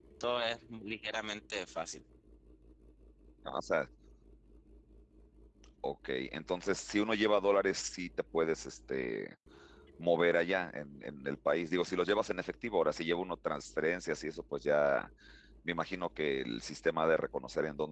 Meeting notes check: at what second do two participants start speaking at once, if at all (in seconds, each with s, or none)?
none